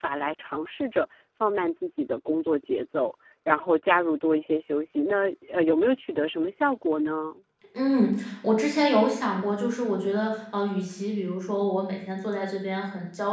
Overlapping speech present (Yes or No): No